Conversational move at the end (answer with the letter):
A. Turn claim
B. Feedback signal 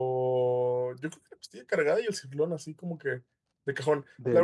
B